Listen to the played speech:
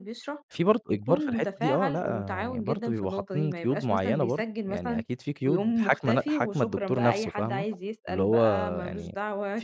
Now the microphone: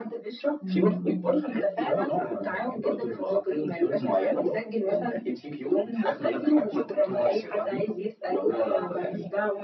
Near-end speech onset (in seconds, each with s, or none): 0.6 s